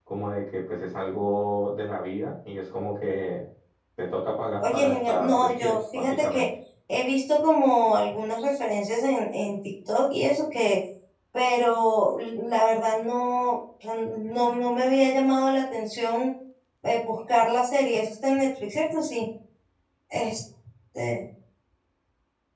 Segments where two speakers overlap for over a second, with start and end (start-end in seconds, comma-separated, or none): 4.6-6.4